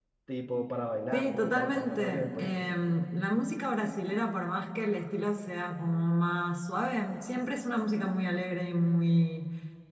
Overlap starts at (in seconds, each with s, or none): 1.1 s